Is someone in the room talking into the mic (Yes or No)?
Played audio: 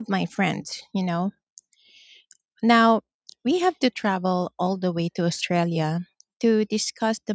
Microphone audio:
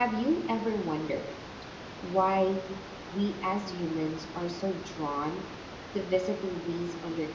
Yes